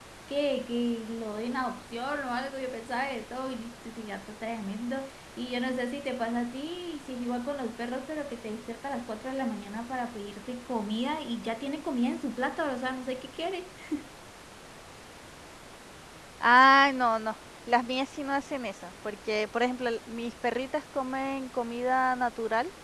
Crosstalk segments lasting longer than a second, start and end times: none

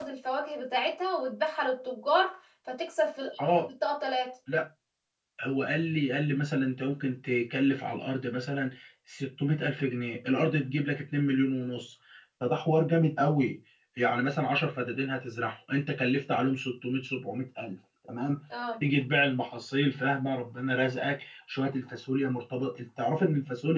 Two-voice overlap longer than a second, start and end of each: none

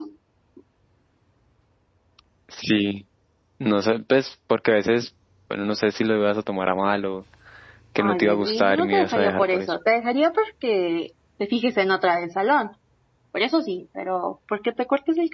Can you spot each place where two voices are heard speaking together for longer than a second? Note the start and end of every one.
8.0-9.7

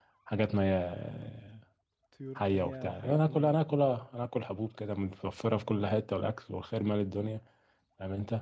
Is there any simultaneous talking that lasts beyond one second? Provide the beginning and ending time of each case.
2.4-3.7

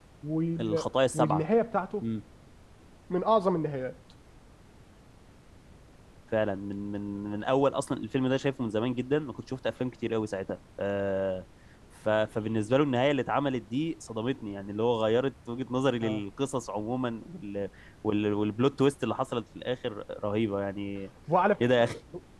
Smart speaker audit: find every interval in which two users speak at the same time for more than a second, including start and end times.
none

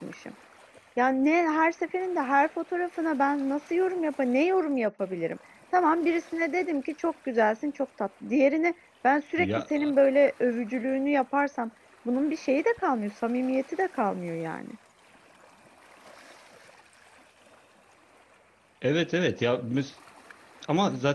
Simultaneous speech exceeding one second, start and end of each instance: none

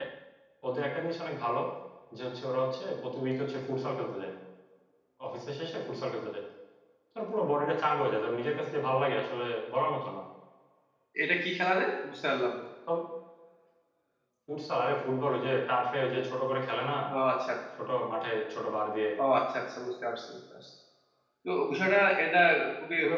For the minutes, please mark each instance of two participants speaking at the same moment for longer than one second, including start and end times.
none

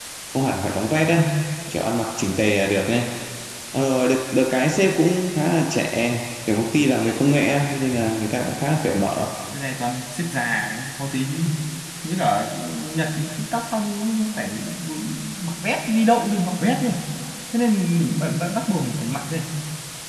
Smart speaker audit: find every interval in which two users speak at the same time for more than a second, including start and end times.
none

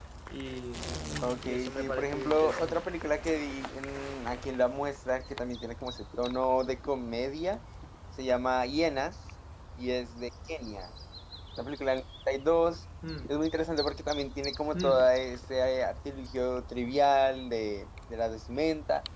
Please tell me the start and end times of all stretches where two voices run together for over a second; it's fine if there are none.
1.4-2.9

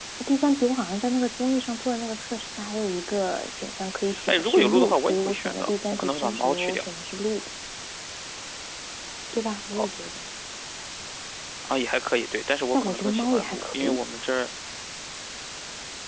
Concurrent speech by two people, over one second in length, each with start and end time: 4.3-6.8, 12.7-14.0

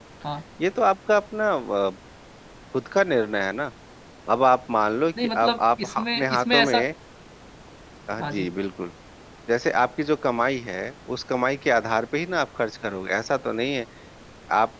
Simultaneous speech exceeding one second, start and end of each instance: 5.3-6.9

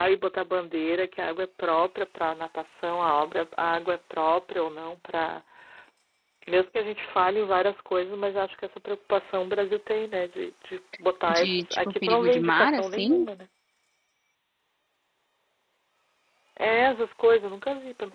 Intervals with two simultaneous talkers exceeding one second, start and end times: 11.3-13.3

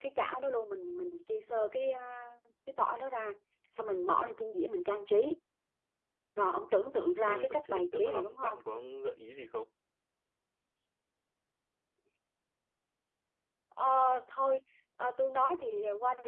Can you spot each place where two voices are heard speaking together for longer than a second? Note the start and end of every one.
7.0-8.6

